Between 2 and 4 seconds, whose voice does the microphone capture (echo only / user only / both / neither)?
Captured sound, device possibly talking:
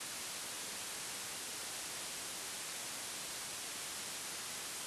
neither